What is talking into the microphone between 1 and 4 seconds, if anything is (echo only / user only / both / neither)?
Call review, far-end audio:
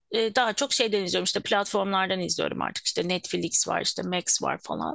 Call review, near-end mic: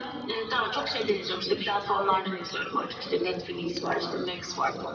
echo only